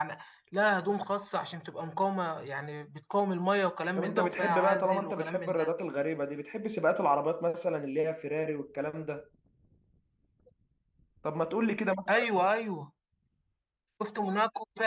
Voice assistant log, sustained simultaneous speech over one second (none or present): present